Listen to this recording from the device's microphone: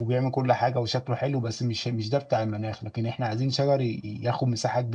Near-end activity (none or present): present